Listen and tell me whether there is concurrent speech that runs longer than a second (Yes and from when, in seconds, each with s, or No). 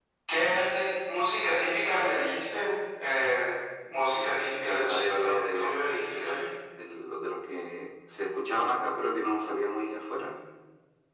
Yes, from 4.6 s